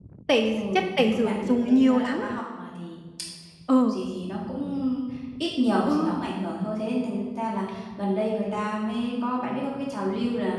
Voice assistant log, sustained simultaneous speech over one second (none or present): present